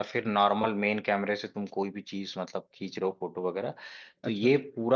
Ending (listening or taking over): listening